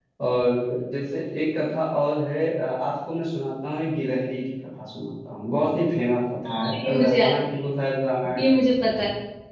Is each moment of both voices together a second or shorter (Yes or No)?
No